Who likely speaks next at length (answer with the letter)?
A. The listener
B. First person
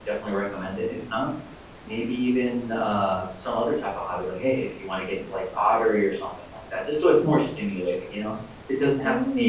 B